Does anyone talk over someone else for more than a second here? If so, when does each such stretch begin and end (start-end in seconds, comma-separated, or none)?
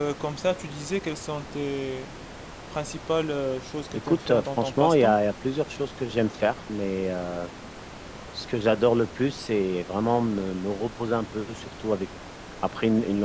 3.9-5.2